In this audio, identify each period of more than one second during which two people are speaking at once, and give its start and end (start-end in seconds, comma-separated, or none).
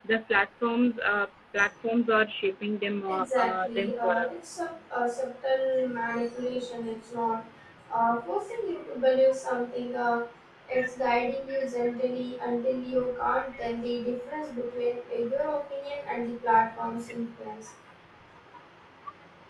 3.1-4.3